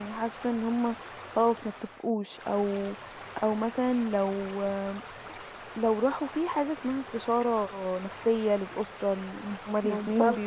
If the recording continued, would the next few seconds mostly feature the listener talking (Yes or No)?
No